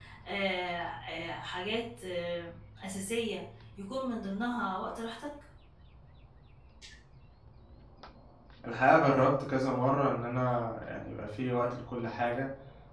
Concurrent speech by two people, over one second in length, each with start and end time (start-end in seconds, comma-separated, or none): none